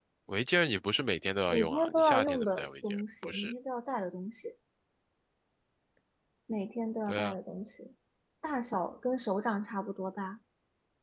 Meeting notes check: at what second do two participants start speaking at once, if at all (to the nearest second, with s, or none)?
1 s